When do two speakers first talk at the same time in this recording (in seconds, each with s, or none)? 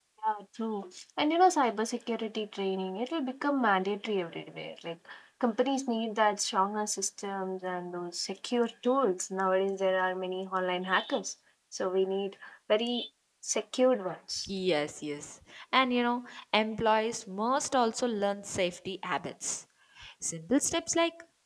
none